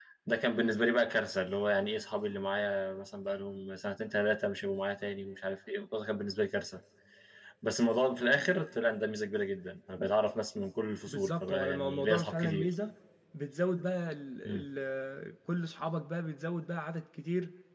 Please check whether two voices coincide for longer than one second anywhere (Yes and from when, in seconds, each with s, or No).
Yes, from 11.1 s